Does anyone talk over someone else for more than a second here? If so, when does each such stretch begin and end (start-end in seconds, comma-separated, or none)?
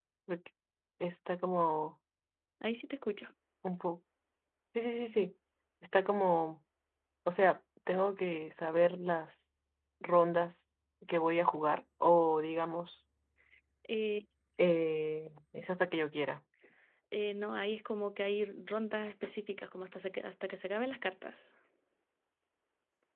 none